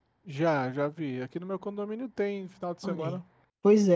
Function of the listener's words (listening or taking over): taking over